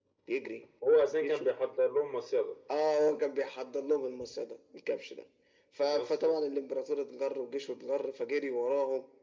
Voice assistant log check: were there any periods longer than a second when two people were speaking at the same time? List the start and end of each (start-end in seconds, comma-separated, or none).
none